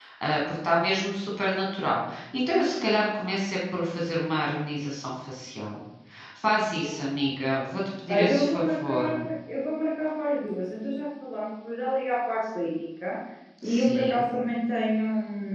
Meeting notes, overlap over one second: present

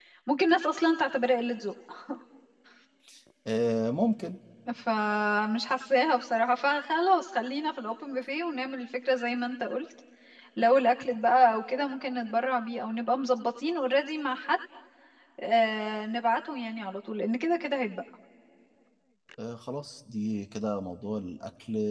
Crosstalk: none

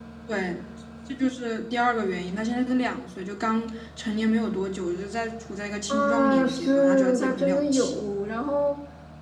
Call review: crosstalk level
present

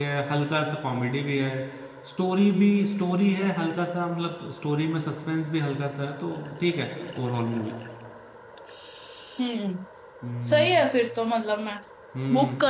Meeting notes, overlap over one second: none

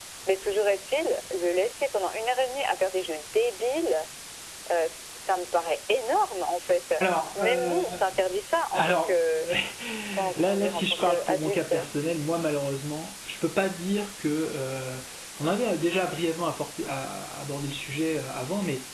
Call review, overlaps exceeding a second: present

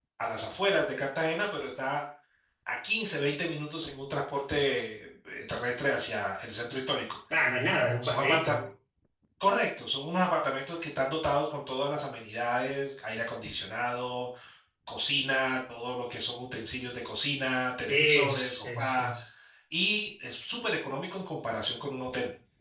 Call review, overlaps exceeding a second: present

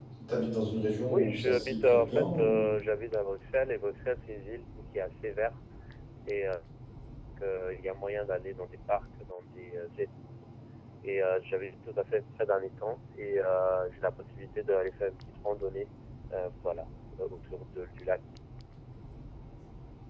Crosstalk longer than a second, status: present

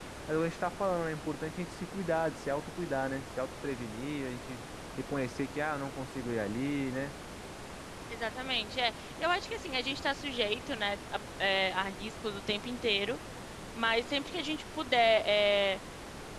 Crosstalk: none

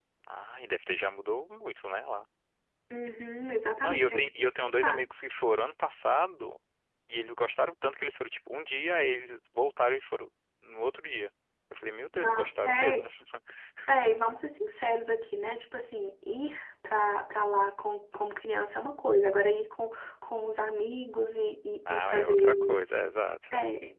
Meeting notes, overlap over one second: present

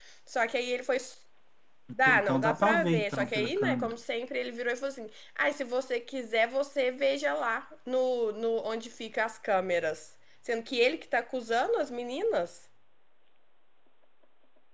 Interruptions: present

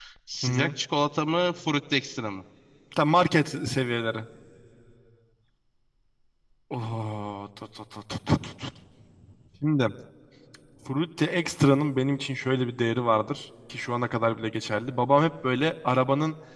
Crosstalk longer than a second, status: none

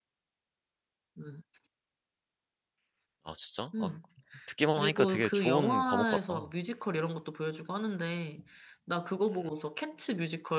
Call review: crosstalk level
present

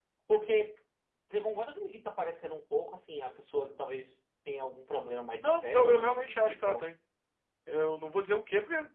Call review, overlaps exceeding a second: present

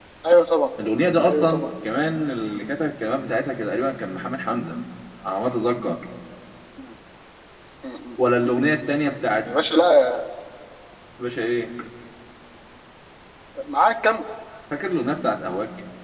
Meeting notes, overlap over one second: none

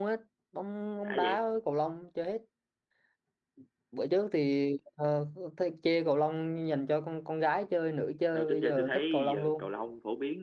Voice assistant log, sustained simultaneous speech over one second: present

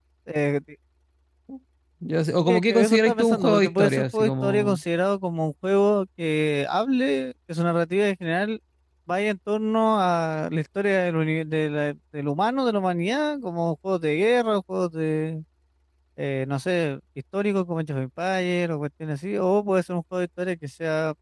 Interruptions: present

